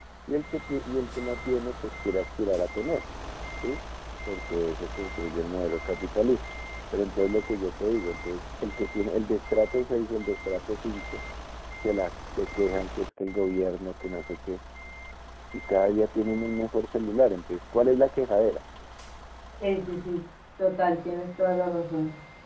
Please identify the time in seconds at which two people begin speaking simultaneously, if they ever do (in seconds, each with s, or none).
none